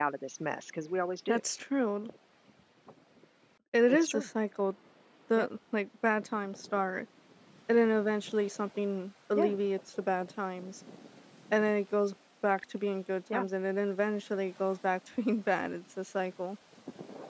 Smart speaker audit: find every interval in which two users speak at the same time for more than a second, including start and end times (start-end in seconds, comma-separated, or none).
none